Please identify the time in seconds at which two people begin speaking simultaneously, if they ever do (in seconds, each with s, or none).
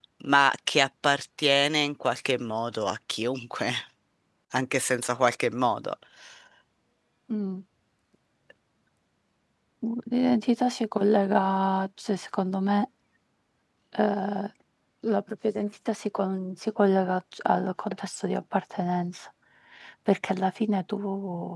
none